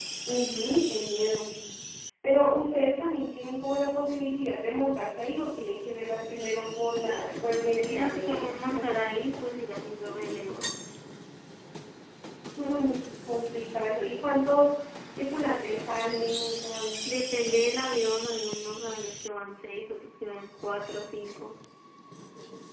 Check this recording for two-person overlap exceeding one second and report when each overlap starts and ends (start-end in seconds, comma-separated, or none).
7.8-9.3